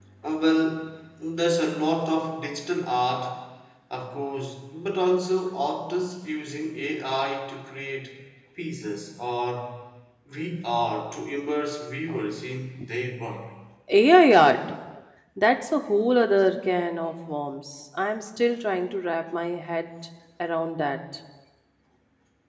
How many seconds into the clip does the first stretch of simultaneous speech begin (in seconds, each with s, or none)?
none